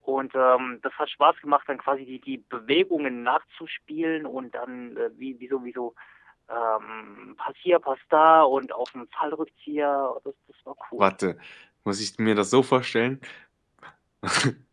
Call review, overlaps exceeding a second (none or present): none